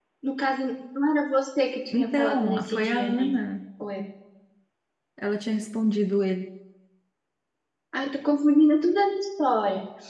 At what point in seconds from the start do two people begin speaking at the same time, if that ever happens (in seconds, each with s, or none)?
1.9 s